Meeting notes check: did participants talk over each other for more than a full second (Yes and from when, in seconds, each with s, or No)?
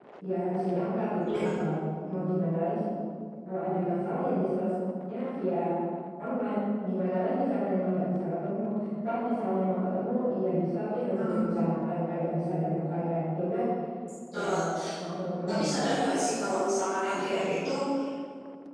No